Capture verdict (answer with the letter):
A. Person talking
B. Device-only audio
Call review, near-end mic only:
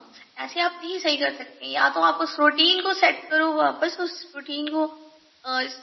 B